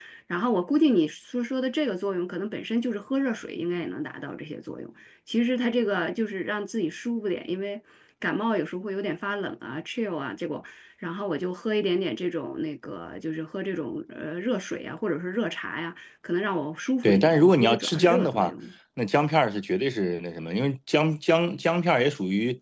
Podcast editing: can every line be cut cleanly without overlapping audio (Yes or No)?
No